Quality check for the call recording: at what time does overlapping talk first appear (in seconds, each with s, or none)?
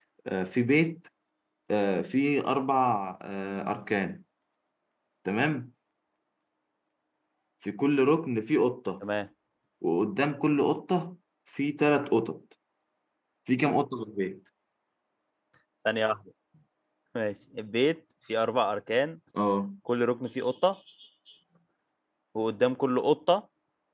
none